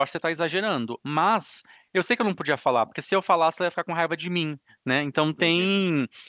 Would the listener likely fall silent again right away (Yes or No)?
Yes